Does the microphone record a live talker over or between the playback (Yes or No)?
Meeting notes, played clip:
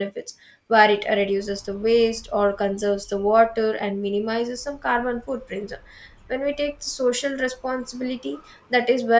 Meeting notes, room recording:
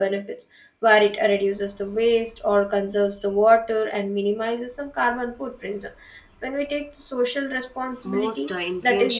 Yes